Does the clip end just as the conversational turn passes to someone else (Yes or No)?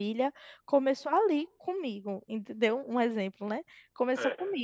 No